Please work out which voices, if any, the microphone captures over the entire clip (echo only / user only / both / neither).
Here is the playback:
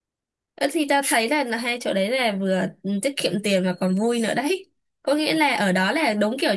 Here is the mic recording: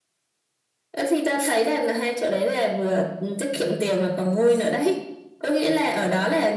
echo only